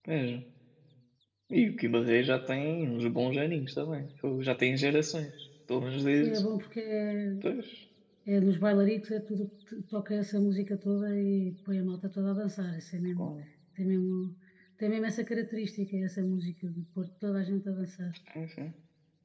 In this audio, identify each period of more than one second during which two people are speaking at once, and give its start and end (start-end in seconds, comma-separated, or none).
none